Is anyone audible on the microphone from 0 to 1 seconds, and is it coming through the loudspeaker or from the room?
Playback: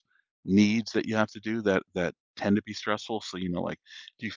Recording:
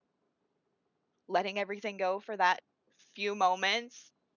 neither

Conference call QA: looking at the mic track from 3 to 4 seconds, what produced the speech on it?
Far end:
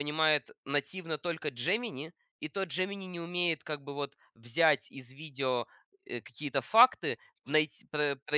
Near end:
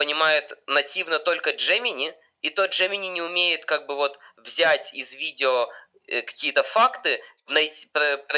echo only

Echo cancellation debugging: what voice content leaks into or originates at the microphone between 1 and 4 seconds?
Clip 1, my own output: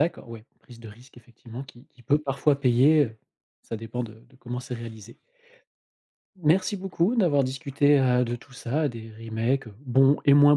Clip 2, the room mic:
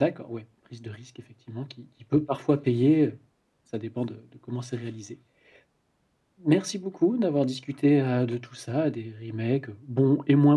echo only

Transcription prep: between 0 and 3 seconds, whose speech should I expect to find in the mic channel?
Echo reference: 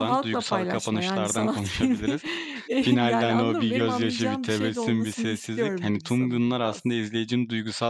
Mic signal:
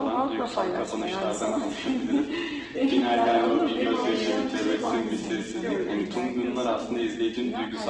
echo only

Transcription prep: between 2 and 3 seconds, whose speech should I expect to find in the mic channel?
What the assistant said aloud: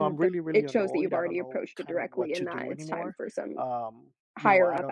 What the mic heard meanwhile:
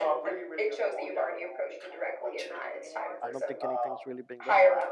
echo only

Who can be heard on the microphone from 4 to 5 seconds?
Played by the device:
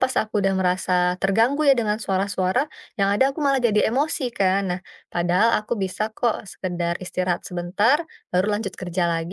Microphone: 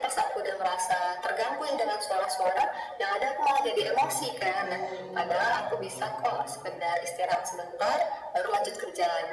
both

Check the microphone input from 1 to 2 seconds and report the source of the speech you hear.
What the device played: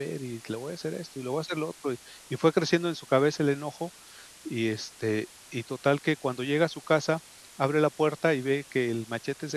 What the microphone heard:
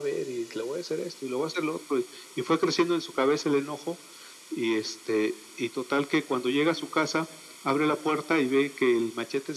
echo only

